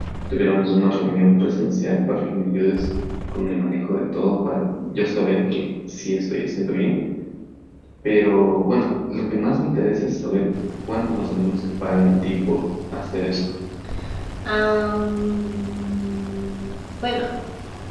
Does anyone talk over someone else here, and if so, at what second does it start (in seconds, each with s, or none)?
none